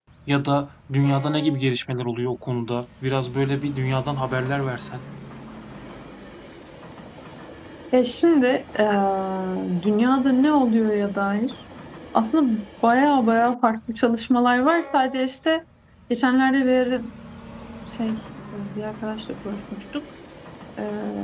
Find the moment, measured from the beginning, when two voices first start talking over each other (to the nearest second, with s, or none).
none